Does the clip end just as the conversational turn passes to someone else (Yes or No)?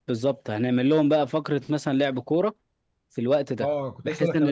Yes